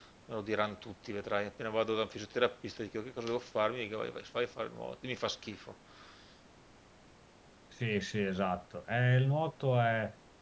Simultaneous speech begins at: none

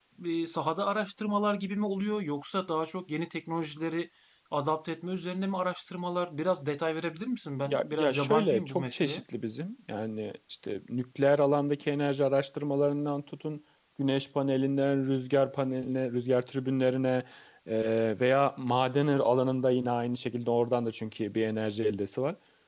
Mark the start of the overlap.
7.6 s

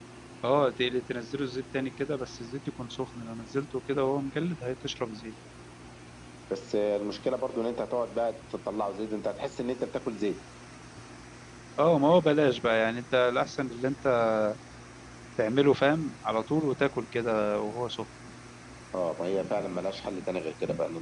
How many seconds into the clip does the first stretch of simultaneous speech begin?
none

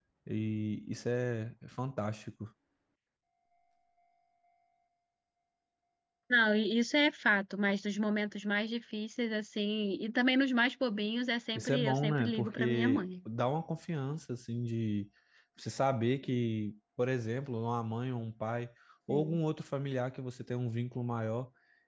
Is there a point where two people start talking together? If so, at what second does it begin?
11.6 s

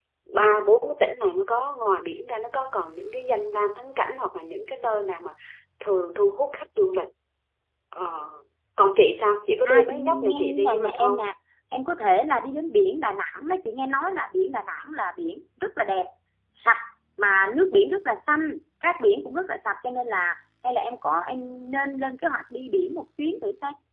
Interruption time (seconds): 9.7 s

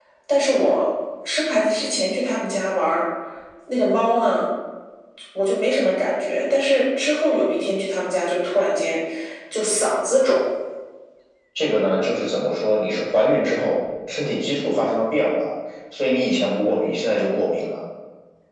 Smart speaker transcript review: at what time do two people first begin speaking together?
none

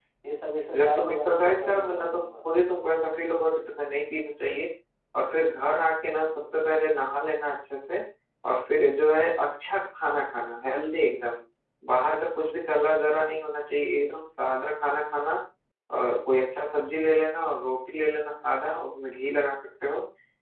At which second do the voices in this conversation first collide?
0.7 s

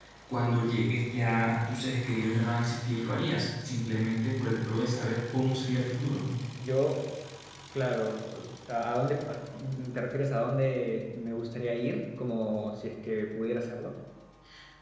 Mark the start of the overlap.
none

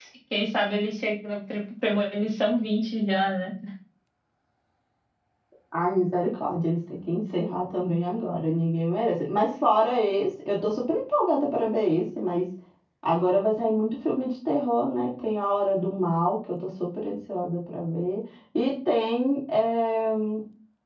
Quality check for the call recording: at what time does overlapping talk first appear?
none

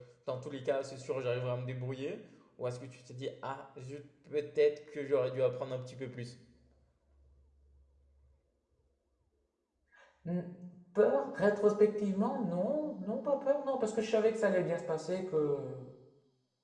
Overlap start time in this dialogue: none

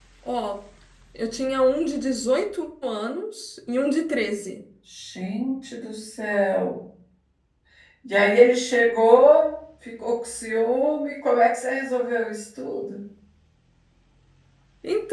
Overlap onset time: none

